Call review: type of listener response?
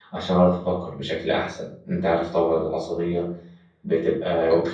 listening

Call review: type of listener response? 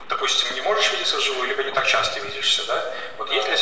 listening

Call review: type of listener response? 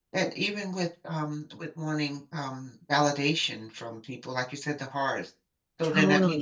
listening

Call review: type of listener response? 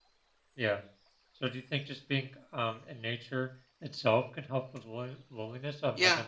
taking over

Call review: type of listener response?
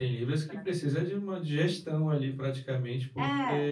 listening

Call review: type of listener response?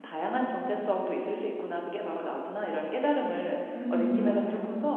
listening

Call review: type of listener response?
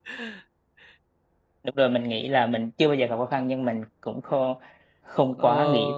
taking over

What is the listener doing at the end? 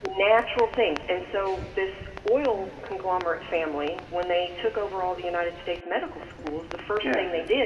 listening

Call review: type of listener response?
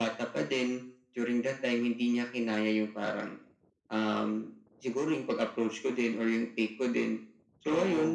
listening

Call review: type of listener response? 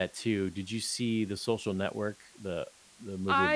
taking over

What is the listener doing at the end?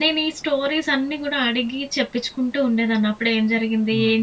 listening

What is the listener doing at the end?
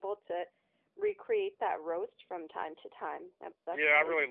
taking over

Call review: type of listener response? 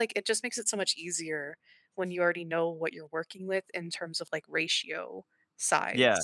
taking over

